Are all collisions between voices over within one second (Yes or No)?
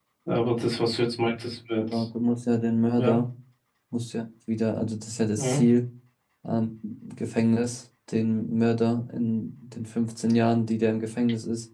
Yes